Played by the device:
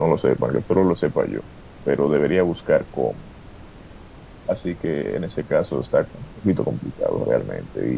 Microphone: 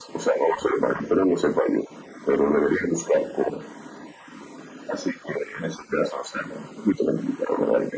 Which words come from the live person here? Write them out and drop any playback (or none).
none